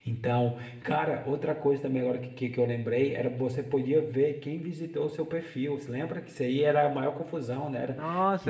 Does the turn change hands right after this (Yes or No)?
Yes